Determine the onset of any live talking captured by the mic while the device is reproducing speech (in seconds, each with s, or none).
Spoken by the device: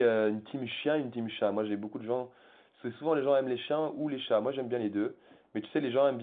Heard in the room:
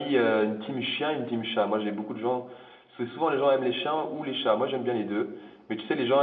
none